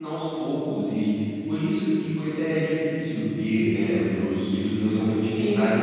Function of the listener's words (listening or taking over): listening